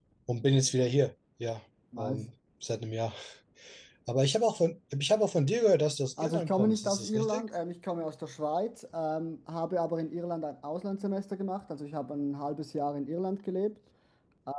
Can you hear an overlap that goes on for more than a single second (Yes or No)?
Yes